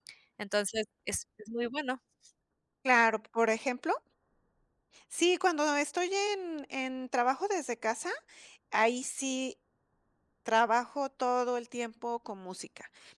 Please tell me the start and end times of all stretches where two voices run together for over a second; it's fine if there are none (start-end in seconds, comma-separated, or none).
none